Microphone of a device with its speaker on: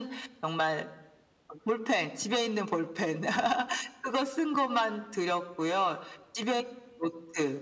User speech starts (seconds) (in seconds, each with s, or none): none